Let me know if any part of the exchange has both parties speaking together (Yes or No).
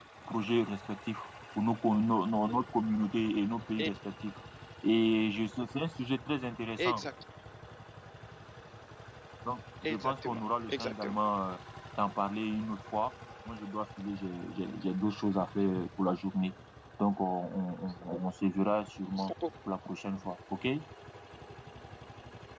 Yes